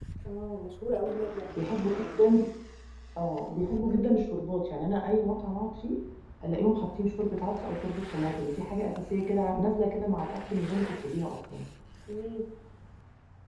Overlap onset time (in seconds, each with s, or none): none